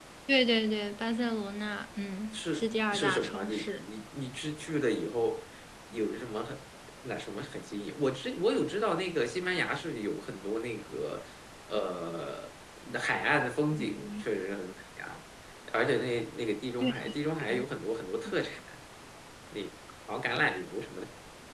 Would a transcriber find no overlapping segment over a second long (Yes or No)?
No